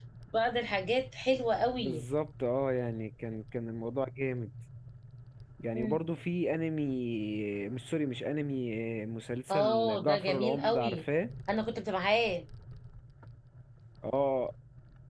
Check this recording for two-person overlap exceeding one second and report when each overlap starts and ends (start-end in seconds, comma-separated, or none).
9.5-11.0